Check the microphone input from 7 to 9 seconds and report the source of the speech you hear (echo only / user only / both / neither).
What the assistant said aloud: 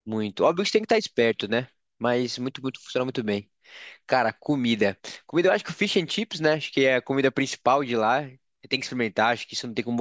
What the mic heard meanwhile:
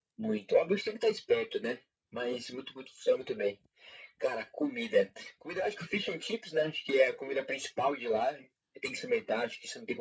echo only